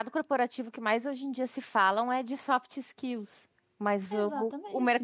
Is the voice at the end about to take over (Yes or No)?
No